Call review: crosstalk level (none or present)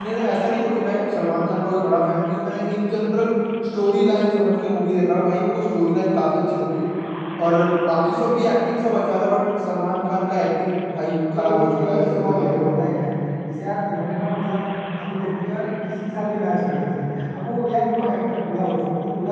present